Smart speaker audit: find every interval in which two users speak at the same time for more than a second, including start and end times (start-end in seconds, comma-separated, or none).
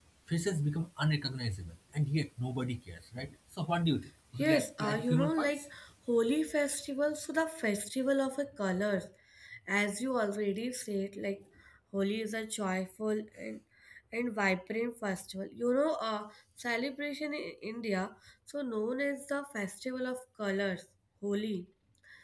4.4-5.7